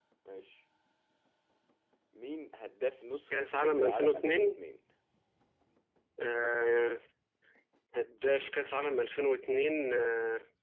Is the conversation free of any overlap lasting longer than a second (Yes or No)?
No